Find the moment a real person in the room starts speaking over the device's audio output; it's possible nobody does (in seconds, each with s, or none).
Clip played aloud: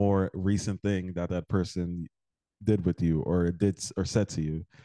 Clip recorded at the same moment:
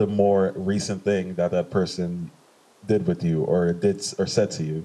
none